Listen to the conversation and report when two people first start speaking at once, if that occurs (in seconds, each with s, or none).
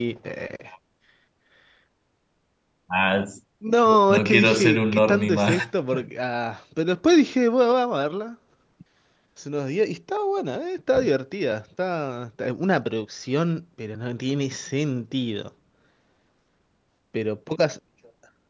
4.1 s